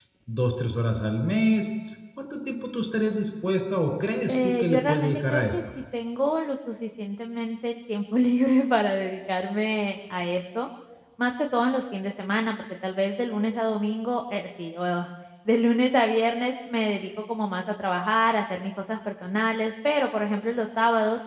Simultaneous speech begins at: 4.3 s

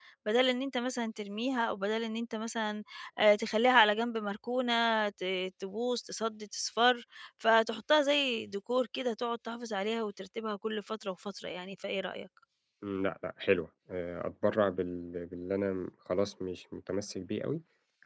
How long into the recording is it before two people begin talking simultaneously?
none

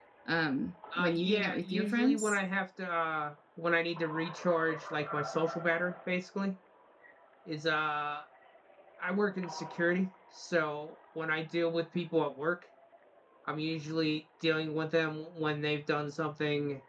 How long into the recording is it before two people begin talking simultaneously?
1.0 s

